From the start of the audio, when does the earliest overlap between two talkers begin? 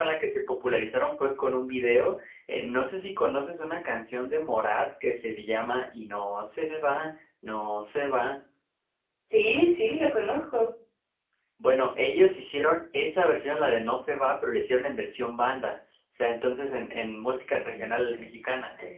17.5 s

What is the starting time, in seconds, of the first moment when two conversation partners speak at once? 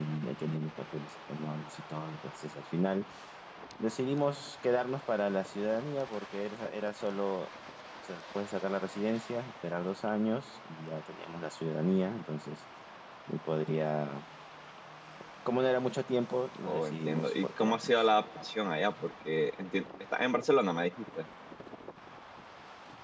16.6 s

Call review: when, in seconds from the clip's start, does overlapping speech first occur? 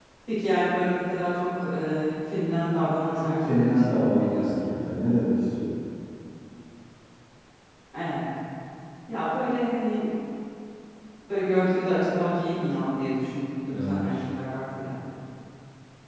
3.2 s

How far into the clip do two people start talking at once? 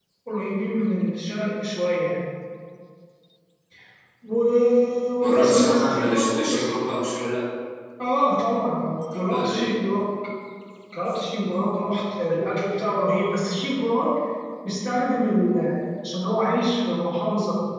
5.2 s

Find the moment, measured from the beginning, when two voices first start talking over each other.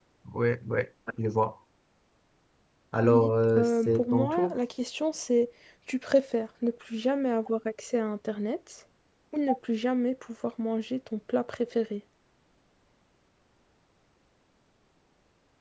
3.0 s

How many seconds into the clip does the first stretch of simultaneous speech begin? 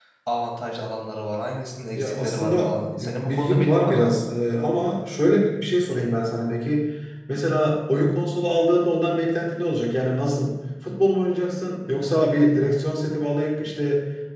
1.9 s

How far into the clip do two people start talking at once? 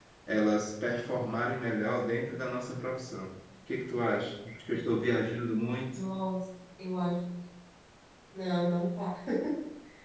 none

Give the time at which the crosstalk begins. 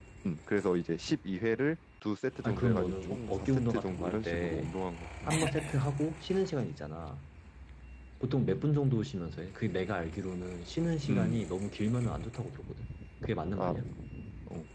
2.4 s

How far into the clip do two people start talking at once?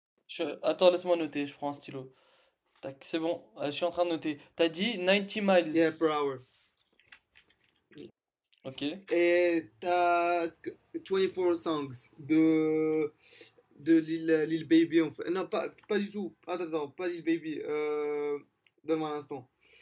none

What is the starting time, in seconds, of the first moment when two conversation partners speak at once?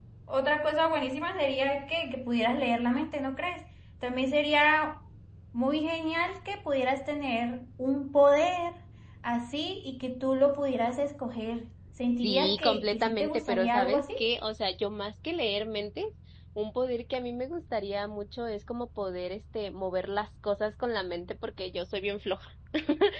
12.2 s

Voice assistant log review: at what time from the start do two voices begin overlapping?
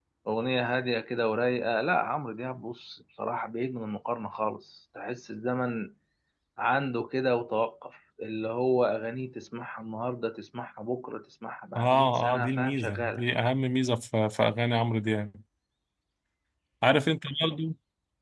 11.8 s

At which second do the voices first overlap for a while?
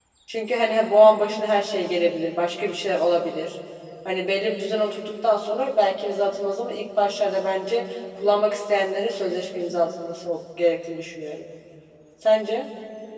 none

